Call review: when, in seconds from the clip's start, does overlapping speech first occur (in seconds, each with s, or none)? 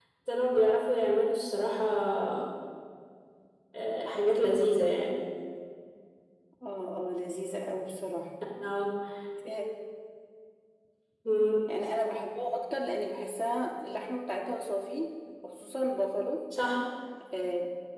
none